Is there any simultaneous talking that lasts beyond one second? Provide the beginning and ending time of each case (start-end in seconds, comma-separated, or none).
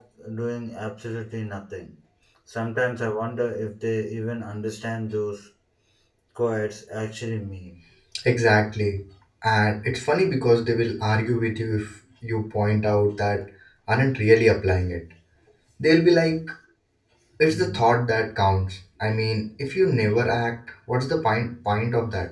none